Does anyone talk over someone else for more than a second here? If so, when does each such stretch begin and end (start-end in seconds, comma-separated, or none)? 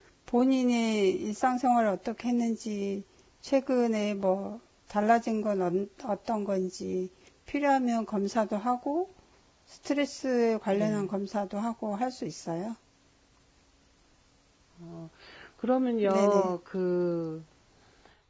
none